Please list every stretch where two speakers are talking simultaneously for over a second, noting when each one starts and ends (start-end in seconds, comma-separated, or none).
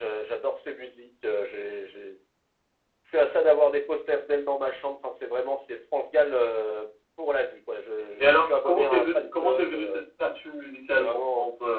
8.2-9.9